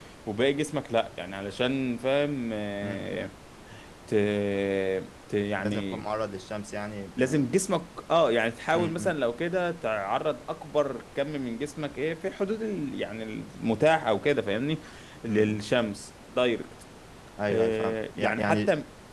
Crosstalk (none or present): present